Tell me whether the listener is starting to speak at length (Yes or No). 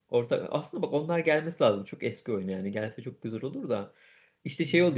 No